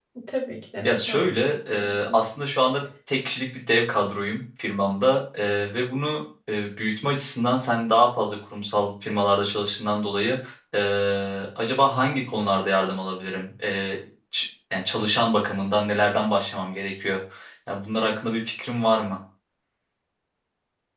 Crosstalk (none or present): present